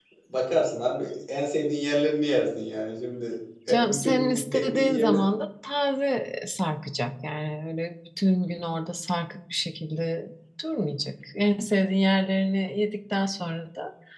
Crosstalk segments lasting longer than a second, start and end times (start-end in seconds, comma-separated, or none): 3.7-5.2